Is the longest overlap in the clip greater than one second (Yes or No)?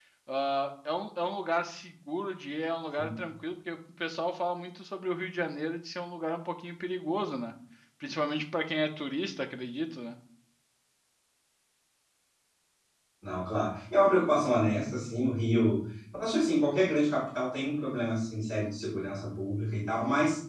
No